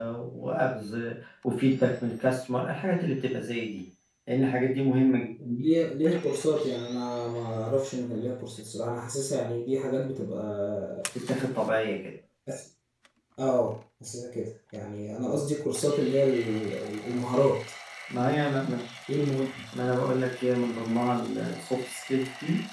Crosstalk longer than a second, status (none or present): none